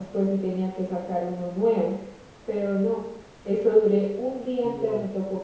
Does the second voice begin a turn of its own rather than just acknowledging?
No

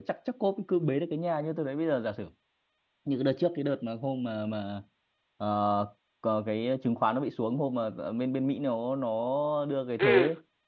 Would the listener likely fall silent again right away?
Yes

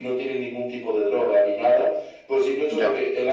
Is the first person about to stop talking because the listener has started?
No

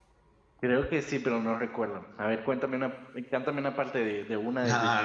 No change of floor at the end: No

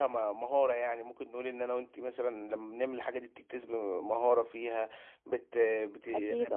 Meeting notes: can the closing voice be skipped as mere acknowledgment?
Yes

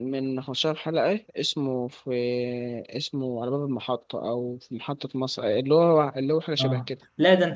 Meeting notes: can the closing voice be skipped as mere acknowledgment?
No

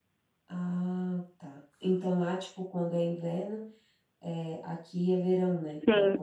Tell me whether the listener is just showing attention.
No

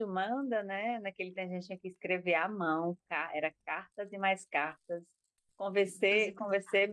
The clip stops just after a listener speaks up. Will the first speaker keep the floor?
Yes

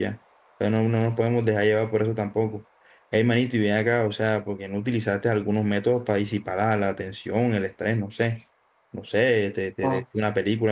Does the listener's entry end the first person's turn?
No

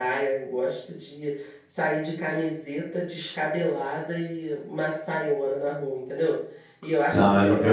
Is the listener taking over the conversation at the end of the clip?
Yes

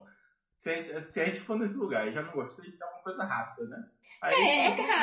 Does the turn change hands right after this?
Yes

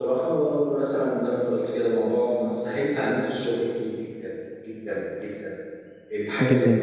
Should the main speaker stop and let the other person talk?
No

